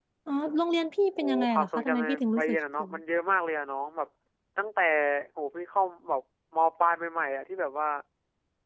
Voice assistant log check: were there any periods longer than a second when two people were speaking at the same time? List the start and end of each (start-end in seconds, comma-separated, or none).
1.2-2.9